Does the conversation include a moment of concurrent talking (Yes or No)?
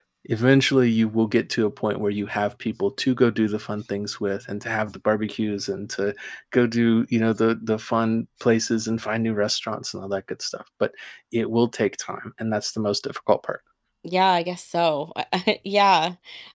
No